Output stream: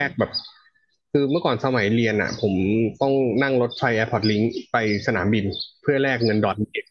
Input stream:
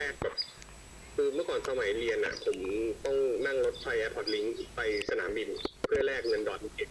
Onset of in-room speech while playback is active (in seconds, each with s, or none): none